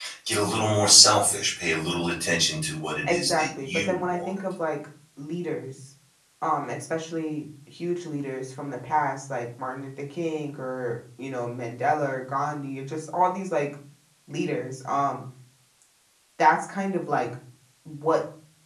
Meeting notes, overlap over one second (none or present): present